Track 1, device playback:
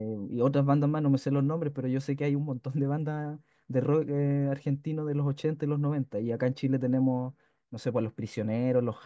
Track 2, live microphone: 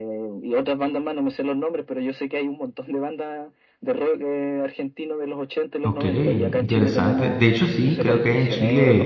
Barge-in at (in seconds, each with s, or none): 5.8 s